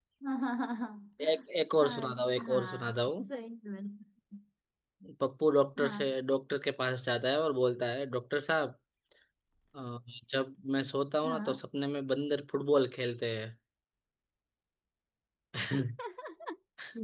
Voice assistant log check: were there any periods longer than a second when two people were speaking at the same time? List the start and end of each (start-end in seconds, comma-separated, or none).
1.8-3.3